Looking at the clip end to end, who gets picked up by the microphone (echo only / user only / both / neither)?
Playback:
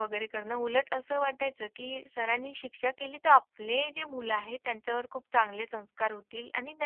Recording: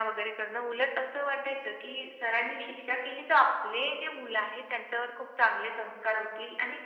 echo only